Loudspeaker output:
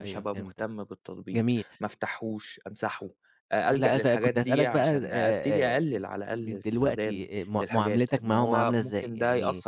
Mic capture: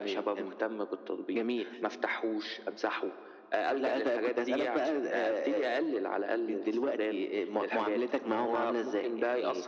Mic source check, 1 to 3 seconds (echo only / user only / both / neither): echo only